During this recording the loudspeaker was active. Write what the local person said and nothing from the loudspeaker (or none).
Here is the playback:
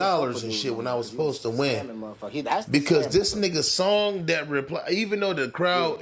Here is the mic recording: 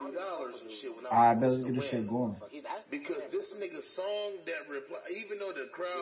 All right, bet let's get this shit going.